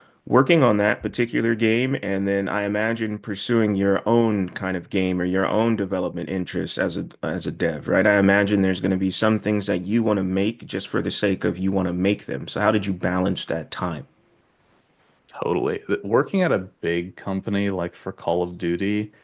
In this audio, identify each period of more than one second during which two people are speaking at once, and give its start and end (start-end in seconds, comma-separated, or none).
none